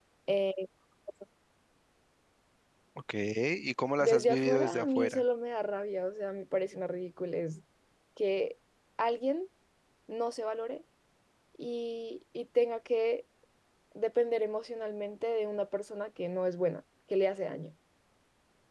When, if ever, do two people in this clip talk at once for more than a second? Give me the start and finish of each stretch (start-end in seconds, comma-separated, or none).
4.0-5.2